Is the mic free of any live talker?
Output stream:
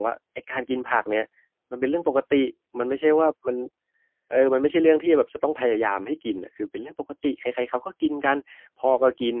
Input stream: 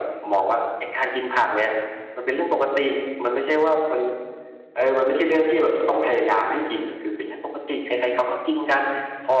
Yes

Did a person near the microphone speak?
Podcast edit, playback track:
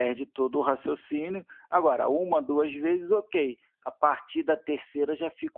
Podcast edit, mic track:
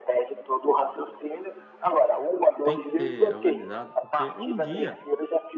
Yes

